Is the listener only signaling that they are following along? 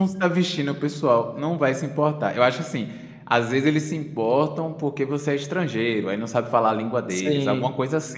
Yes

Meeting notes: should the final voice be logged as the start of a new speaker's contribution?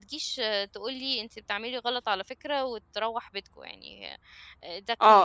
Yes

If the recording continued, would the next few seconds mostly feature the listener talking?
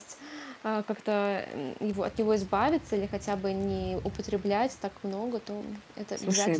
Yes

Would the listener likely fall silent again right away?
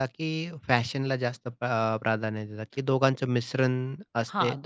No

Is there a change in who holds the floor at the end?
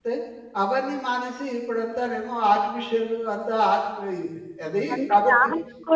Yes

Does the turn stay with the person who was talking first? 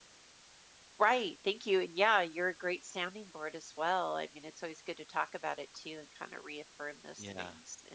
Yes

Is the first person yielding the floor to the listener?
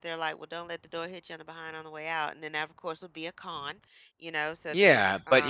Yes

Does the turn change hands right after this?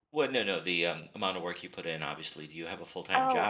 Yes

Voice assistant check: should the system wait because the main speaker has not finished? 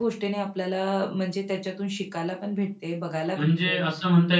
No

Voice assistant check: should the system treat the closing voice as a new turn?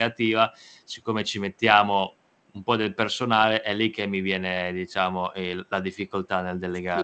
Yes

